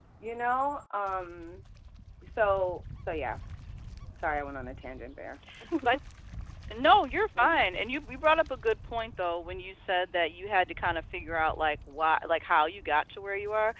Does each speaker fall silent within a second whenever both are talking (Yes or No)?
Yes